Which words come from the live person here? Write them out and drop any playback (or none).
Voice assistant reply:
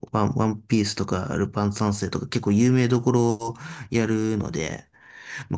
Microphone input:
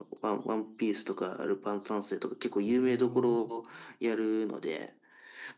なるほどな。